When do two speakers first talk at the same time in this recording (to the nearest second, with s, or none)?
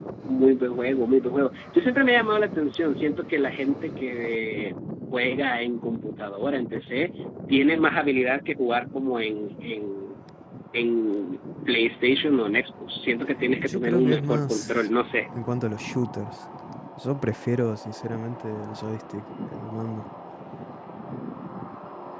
14 s